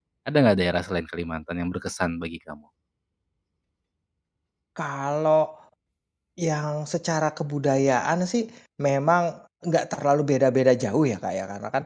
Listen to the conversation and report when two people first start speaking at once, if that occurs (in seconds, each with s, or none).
none